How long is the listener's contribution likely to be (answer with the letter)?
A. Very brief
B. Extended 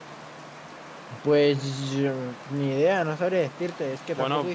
B